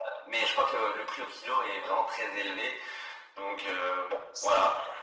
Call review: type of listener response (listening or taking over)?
taking over